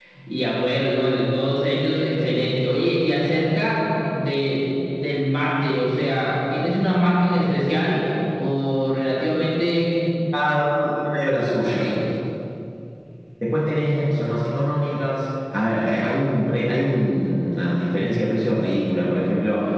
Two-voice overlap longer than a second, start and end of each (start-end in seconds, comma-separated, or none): none